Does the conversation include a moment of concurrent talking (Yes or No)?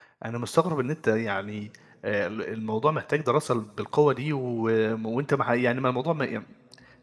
No